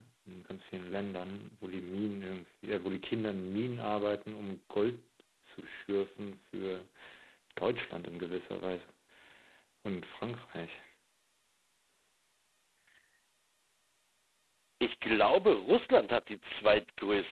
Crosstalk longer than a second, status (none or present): none